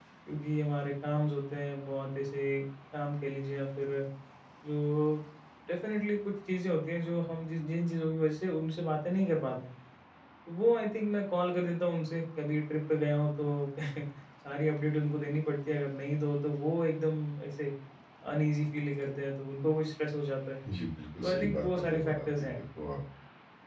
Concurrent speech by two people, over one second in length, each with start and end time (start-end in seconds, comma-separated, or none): 21.2-22.5